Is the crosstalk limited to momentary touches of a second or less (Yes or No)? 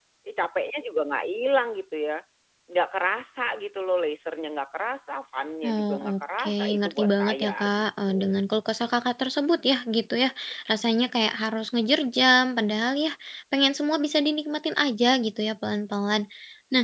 No